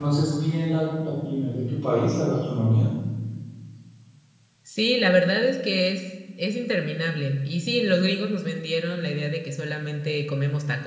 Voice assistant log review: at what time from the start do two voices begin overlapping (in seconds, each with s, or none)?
none